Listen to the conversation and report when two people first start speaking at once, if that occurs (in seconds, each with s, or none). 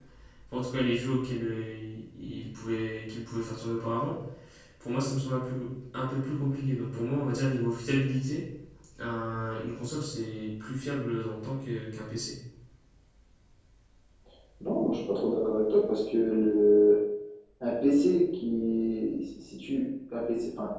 none